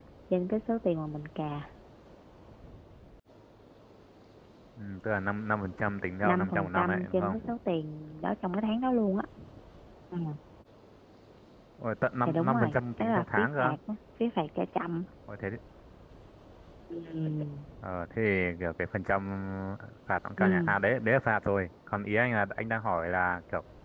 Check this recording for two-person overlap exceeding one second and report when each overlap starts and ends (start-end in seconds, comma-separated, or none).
6.2-7.5, 12.3-13.7